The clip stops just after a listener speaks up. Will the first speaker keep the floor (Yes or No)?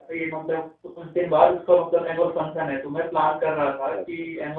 Yes